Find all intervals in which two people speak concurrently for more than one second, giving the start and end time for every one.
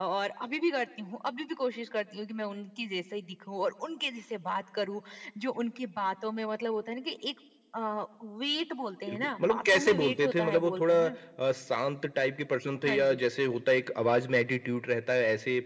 9.1-10.9

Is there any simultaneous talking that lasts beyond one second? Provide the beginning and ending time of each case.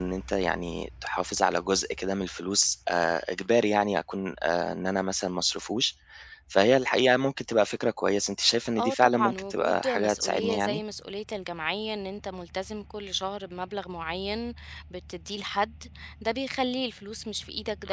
8.8-10.8

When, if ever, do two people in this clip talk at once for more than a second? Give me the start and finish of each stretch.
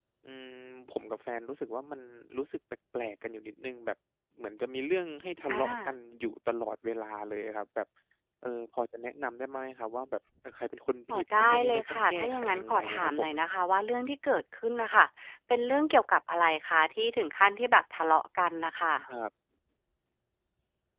11.1-13.3

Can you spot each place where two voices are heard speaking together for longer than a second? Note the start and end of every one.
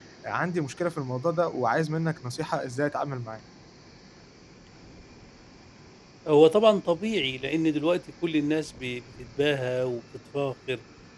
none

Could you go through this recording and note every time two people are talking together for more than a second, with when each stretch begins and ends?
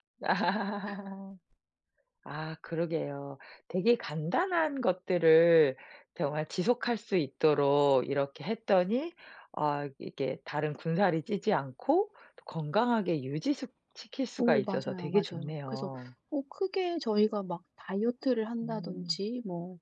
14.4-15.9

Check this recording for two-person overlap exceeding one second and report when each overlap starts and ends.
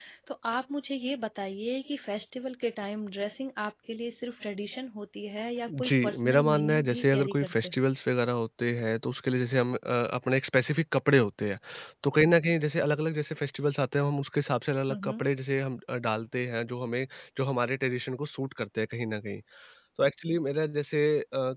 5.7-7.8

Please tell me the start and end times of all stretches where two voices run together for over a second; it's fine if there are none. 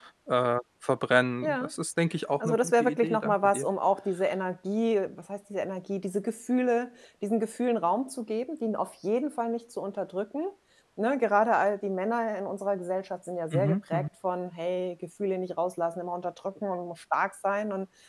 2.4-3.7

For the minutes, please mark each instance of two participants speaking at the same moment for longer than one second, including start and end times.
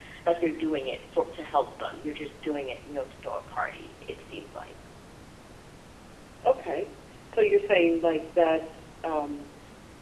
none

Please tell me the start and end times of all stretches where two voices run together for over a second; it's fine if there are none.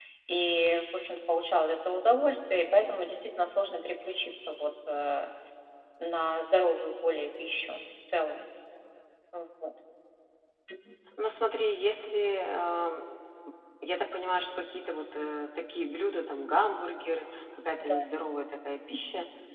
none

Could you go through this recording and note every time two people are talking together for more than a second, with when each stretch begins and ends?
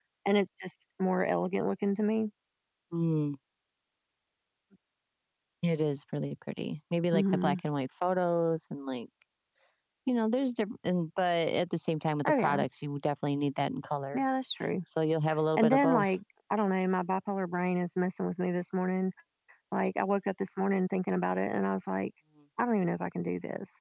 none

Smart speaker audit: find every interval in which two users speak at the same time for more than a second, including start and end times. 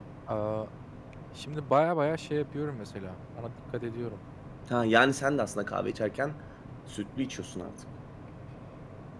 none

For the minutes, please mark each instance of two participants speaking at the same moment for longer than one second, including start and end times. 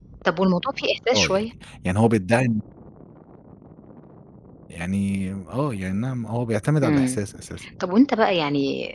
none

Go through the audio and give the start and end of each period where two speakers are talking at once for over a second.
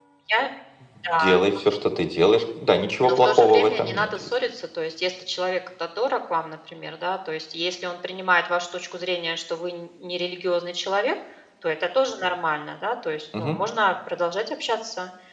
3.0-4.3

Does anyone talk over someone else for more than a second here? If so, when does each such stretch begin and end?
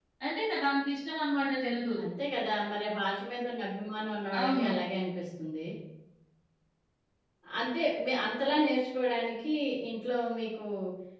none

